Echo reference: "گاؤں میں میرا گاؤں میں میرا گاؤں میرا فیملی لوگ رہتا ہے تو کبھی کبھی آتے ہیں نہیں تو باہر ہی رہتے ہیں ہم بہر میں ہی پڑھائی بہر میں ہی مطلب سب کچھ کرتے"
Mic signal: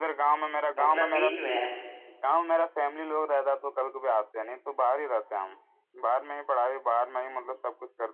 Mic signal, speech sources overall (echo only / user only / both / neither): both